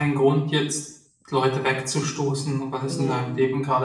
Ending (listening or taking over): listening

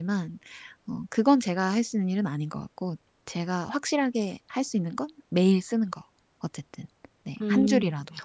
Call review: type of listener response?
taking over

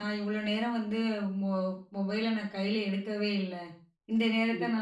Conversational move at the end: listening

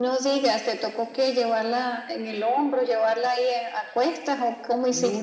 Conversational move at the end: taking over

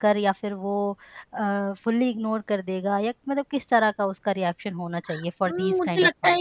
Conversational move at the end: taking over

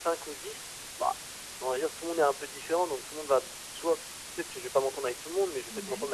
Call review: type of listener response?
listening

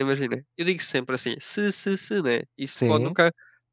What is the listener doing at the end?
listening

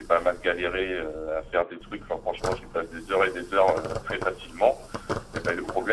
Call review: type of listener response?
listening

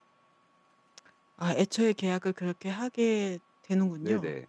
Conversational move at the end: taking over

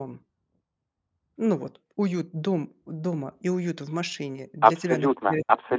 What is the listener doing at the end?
taking over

